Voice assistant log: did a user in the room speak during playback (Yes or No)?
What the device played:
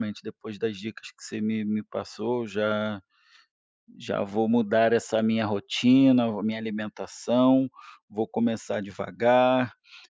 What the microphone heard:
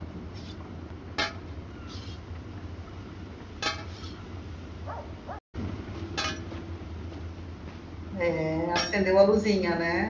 Yes